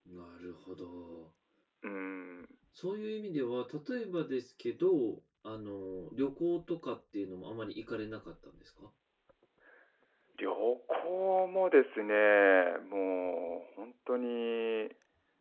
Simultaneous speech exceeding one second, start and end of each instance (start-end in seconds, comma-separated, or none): none